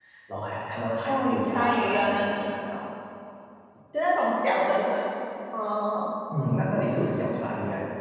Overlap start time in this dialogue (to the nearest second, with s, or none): 1 s